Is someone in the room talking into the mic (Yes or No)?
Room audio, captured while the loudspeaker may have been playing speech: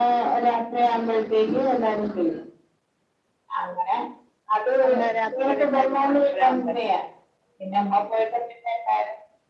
Yes